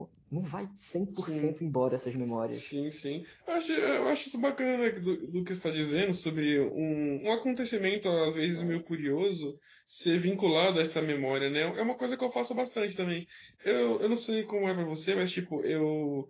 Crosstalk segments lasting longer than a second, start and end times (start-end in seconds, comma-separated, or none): none